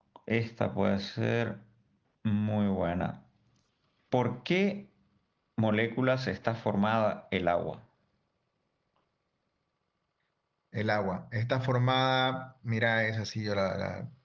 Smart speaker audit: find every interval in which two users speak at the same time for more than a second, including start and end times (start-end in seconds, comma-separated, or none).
none